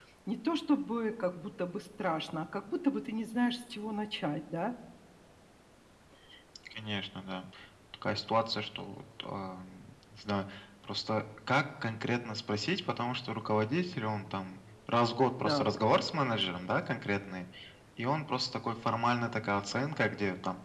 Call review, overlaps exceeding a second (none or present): none